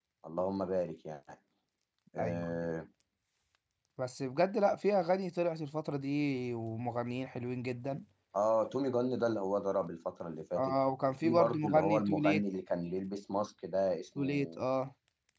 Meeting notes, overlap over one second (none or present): present